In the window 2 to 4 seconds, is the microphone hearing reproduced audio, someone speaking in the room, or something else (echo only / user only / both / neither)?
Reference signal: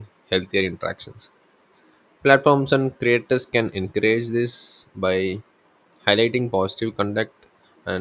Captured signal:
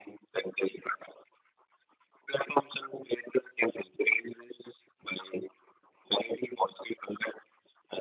echo only